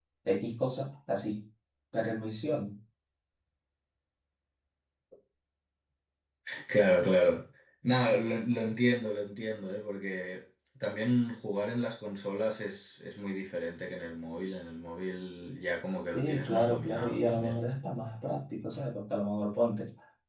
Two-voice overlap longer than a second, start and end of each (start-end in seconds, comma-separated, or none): 16.1-17.6